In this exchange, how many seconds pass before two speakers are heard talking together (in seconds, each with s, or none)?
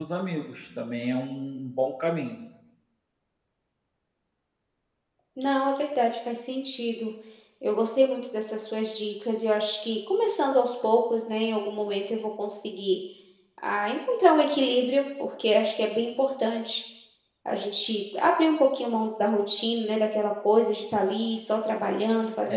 none